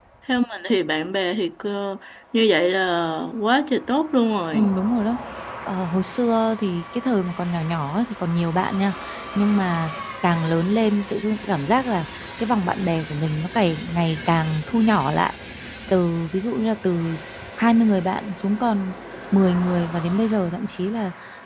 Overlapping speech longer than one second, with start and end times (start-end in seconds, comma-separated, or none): none